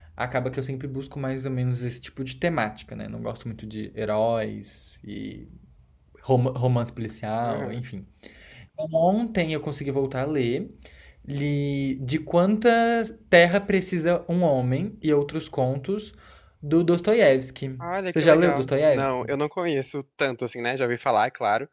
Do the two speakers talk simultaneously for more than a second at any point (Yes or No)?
Yes